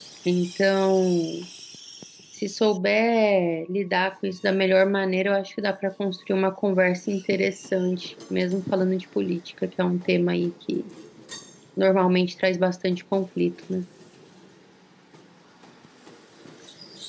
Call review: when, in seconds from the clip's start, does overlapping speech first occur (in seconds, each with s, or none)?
none